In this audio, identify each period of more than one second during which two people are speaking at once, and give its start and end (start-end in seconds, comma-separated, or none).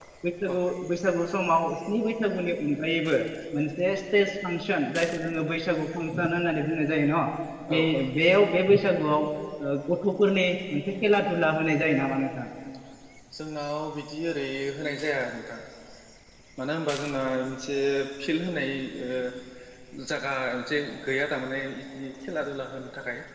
none